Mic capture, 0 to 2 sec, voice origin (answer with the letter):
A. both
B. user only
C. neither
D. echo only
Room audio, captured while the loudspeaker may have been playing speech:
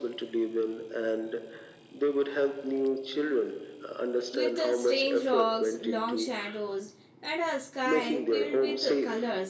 D